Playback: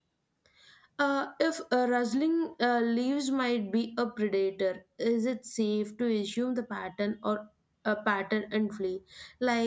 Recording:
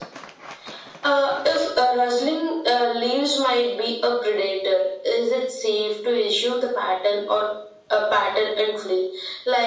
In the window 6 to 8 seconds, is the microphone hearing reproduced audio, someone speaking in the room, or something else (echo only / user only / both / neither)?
echo only